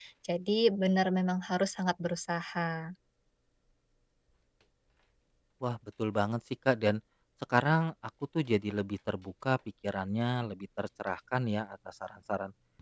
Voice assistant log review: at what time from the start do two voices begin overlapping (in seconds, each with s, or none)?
none